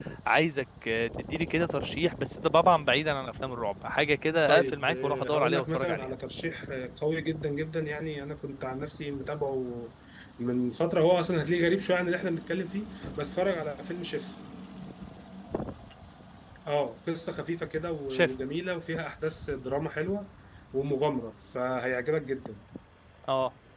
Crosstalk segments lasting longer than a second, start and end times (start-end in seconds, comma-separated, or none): 4.5-6.1